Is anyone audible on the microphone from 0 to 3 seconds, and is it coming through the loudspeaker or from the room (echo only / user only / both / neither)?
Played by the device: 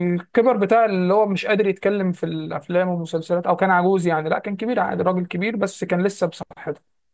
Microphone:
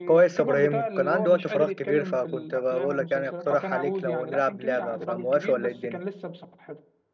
both